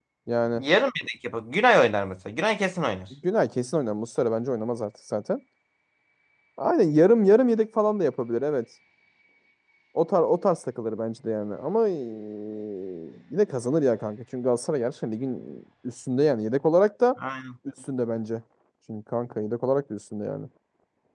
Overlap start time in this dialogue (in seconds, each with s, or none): none